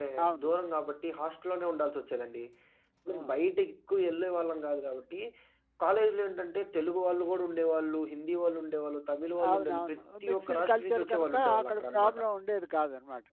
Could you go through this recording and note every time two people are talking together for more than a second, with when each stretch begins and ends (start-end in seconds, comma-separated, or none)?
9.5-12.2